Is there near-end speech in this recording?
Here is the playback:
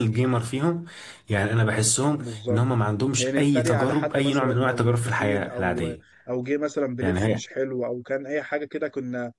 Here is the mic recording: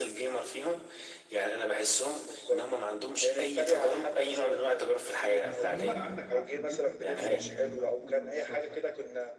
Yes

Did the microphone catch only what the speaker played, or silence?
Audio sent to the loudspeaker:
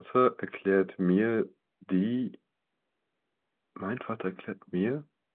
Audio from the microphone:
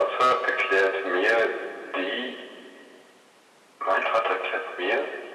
Yes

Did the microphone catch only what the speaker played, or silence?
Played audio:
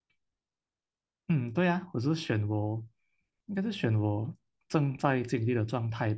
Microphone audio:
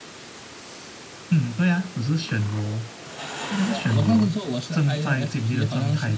No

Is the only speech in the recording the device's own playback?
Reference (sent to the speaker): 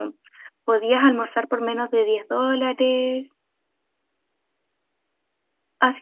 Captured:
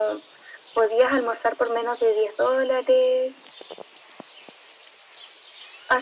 Yes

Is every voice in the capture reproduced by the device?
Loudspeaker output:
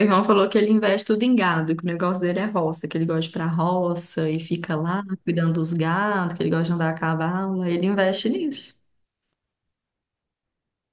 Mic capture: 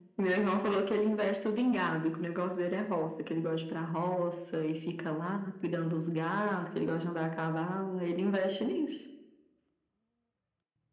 Yes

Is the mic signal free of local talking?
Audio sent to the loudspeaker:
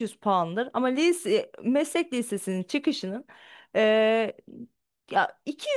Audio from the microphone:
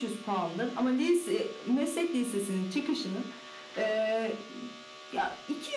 Yes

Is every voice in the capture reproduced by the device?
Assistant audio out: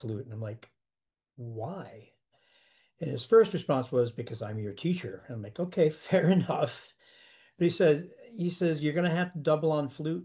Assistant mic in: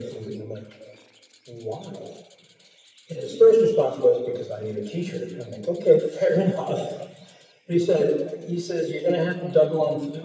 Yes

